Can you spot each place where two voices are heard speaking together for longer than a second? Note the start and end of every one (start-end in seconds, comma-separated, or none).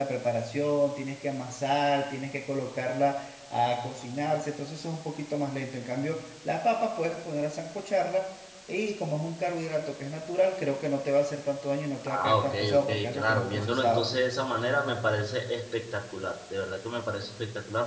12.1-14.1